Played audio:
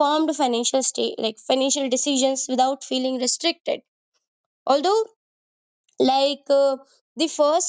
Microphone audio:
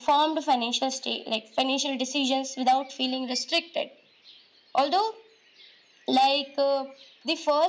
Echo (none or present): present